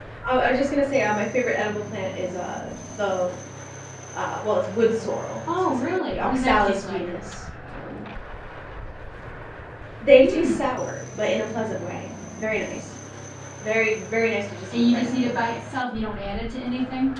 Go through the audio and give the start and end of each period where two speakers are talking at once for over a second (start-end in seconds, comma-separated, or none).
5.7-7.1, 14.7-15.9